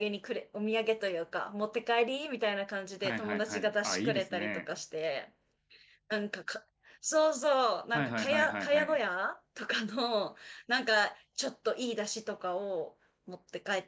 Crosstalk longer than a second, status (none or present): present